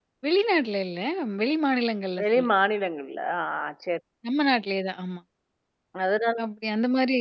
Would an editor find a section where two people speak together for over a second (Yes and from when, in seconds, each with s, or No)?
No